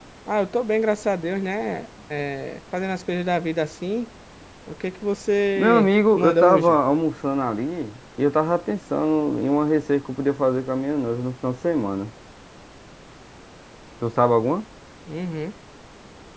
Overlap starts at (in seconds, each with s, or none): 5.6 s